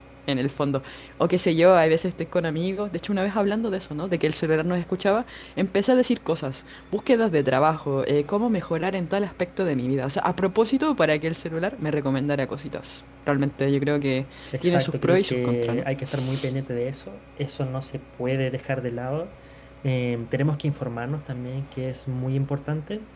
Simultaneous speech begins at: 14.6 s

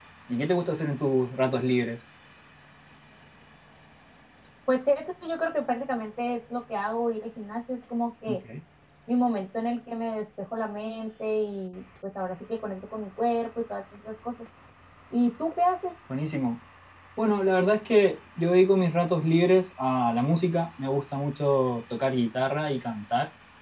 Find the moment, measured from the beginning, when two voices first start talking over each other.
none

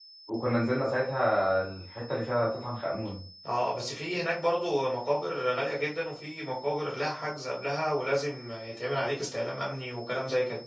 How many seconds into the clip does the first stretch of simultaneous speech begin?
none

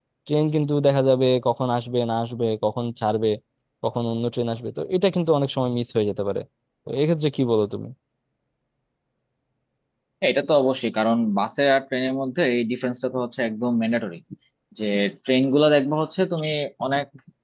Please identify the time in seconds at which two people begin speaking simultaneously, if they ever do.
none

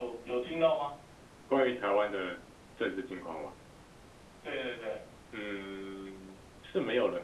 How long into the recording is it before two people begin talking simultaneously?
none

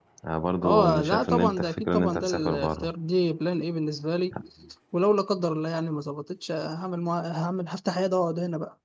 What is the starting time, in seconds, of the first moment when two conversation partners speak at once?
0.6 s

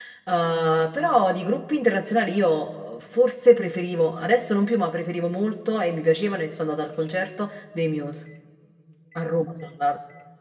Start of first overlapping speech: none

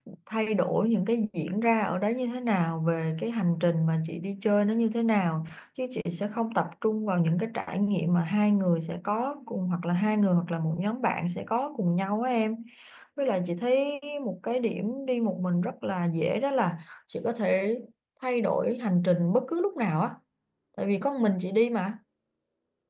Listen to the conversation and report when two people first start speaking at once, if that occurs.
none

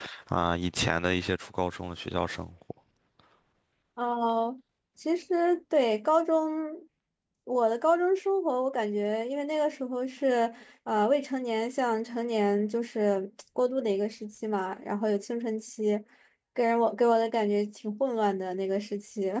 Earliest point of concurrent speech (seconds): none

